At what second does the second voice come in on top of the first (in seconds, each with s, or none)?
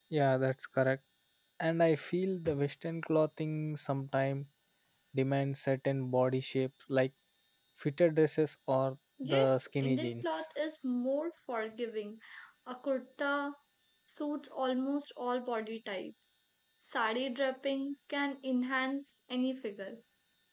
9.2 s